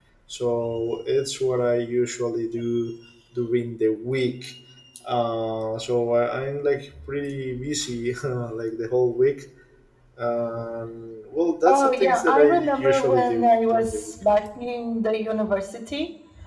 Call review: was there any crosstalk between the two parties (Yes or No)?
Yes